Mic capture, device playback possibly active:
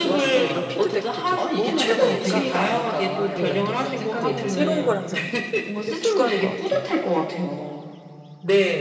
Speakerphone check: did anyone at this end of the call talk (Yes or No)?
Yes